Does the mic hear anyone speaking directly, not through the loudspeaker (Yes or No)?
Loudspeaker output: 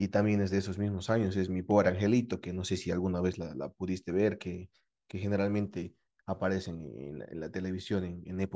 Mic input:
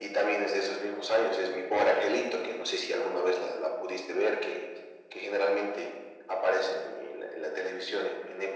No